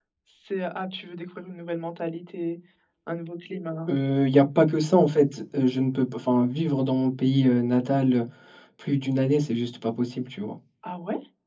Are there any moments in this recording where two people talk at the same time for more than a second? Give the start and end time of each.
none

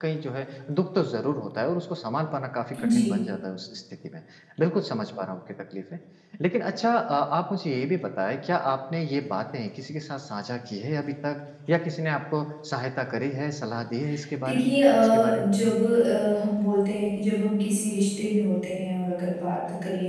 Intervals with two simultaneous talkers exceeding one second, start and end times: 14.4-15.8

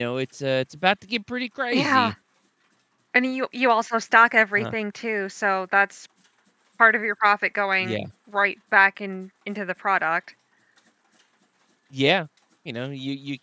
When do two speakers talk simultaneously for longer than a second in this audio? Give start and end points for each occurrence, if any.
none

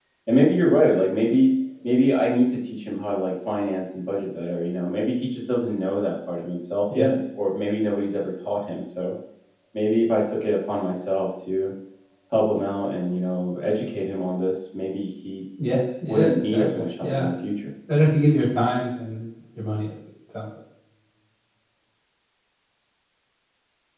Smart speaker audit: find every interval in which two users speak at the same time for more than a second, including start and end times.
16.0-17.2

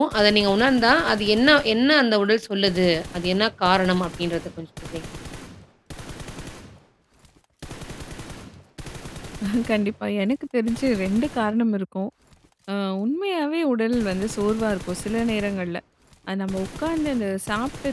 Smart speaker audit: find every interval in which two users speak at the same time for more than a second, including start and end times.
none

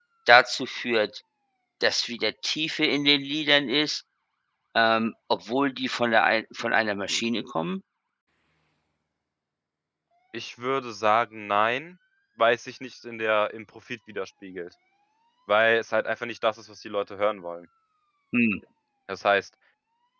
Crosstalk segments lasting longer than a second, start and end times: none

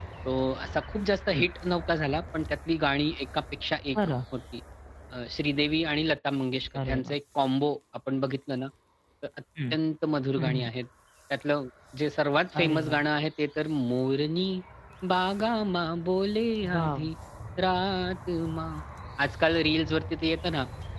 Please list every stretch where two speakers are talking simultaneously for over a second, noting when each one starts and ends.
none

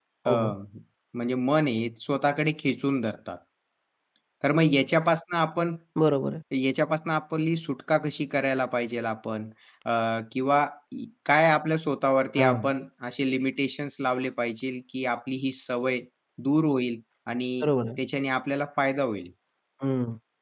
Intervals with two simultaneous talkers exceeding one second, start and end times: none

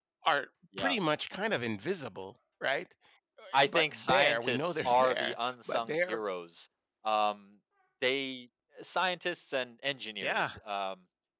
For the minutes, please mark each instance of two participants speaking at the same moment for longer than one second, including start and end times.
3.5-6.2

